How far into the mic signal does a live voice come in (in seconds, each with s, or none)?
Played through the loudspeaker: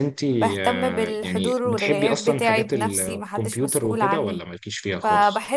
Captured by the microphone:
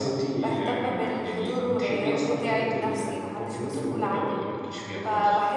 none